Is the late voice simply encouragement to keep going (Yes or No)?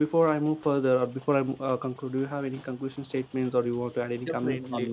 No